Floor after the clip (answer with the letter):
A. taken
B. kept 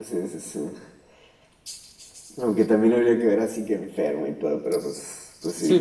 A